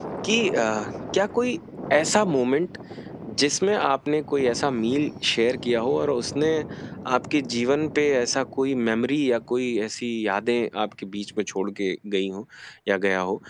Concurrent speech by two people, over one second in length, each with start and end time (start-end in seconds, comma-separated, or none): none